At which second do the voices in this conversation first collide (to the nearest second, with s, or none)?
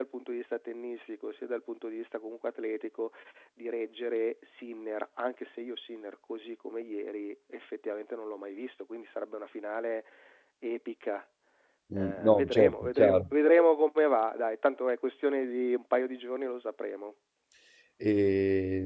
12 s